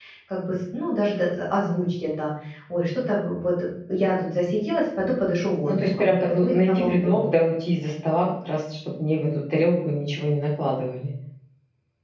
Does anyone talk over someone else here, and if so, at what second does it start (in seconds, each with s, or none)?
5.7 s